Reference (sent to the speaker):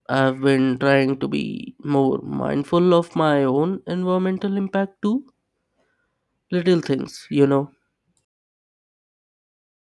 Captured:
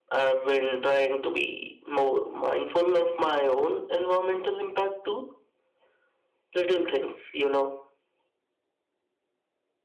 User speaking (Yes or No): No